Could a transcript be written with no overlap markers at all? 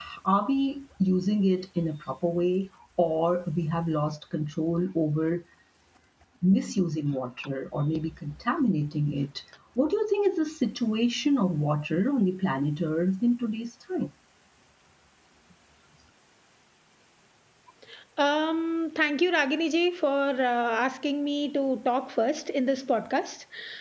Yes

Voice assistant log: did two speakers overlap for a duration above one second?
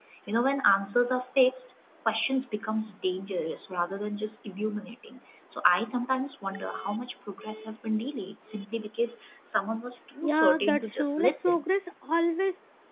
Yes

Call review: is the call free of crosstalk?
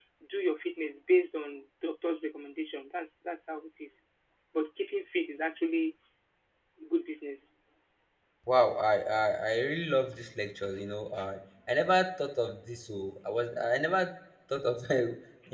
Yes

